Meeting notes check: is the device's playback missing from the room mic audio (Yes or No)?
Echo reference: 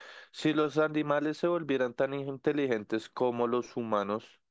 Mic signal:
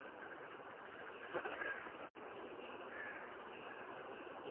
Yes